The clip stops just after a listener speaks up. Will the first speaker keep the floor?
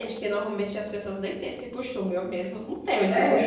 No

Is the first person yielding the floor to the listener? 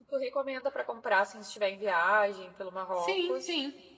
Yes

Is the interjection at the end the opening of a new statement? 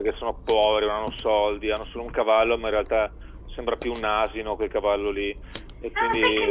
Yes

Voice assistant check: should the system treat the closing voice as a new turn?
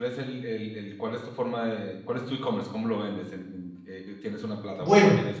Yes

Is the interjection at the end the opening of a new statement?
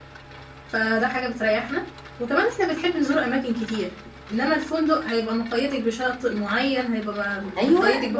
Yes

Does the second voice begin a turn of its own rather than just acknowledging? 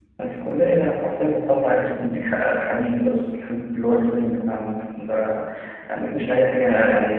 No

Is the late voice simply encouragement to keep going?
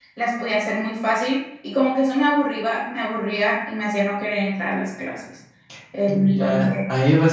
No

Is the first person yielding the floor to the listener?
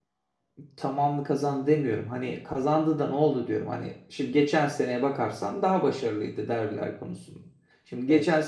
No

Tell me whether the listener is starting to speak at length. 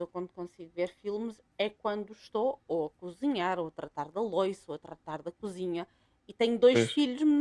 No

